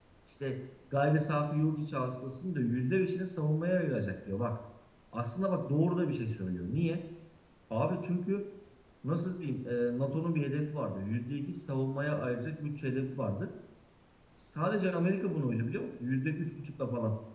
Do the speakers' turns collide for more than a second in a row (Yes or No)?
No